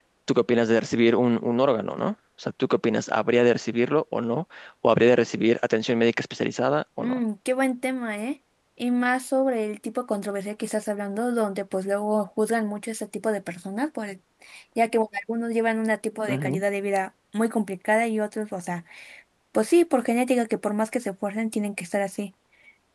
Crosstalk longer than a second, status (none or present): none